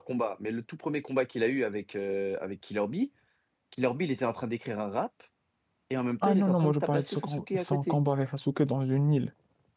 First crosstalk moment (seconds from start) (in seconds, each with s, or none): 6.2 s